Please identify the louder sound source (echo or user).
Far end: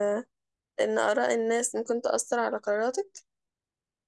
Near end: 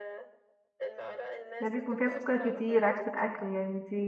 user